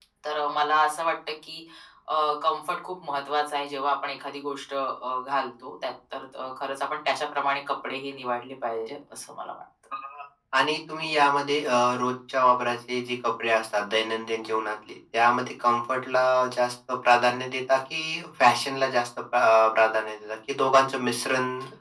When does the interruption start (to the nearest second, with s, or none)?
none